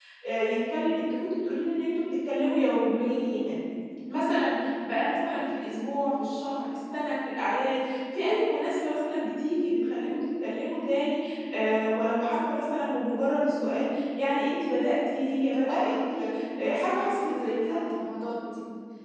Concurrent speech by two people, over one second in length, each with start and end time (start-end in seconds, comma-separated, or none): 15.7-17.8